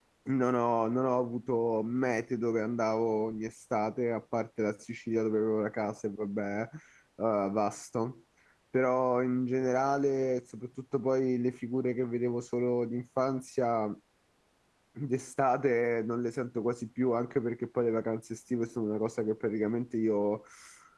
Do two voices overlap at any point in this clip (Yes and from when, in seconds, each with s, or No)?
No